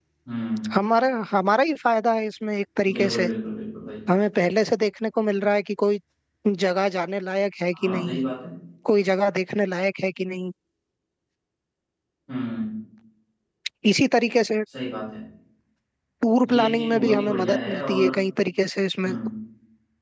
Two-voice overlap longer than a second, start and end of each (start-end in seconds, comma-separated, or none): 16.4-18.1